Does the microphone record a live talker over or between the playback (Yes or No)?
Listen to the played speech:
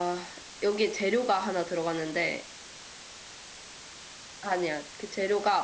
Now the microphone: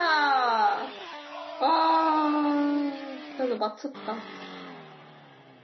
Yes